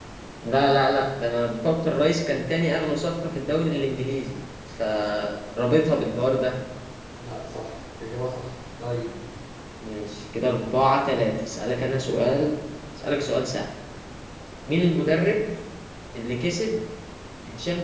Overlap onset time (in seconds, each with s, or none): none